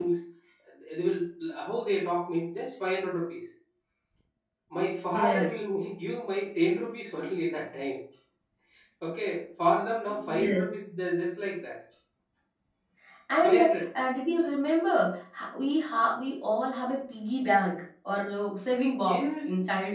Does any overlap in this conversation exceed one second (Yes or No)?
No